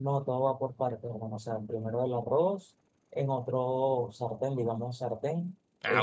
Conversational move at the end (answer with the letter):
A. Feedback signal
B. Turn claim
A